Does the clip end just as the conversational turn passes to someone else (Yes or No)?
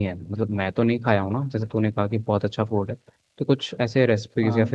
No